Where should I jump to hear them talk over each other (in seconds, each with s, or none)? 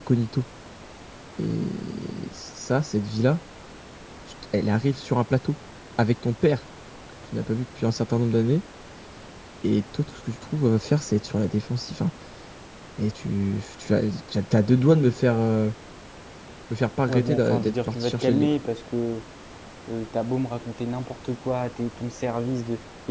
17.1 s